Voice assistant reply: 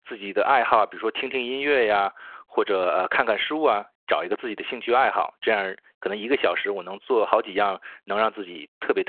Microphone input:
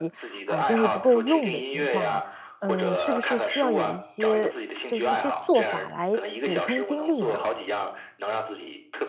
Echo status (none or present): present